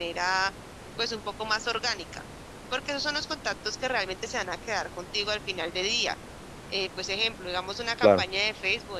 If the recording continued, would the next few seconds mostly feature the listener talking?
No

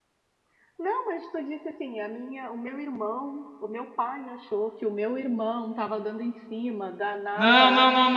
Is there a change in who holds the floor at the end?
Yes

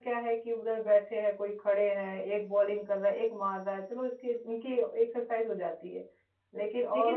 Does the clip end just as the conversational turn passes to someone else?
Yes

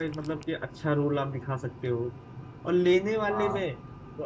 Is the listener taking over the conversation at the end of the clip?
No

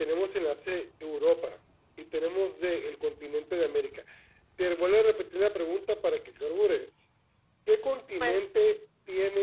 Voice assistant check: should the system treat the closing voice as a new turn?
No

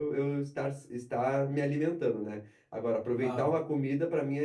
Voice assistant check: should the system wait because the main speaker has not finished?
Yes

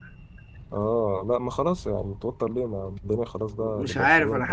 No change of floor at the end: No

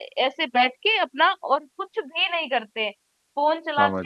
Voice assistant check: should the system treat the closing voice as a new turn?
No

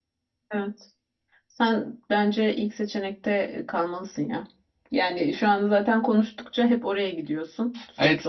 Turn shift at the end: Yes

